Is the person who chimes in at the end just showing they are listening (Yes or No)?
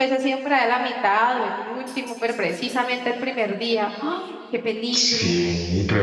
No